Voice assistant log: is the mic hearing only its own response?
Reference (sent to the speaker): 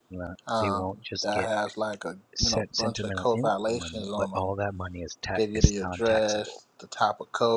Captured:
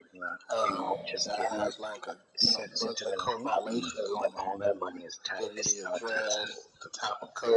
No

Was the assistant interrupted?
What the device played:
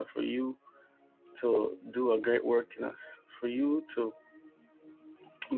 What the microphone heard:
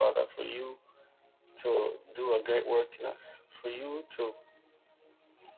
No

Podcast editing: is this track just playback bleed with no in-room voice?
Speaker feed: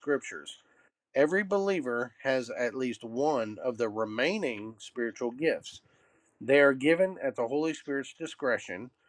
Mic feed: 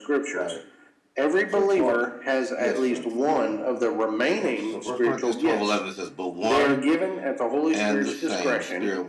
No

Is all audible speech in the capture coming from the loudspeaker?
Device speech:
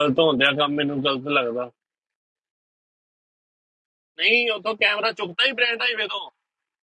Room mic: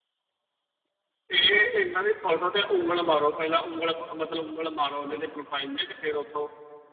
No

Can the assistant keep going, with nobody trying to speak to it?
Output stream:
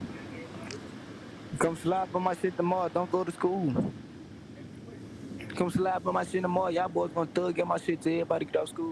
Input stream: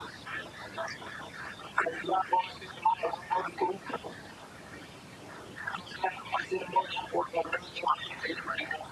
Yes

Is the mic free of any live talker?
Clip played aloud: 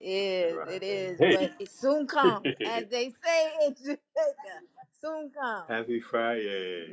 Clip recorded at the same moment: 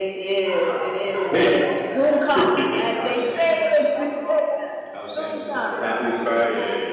No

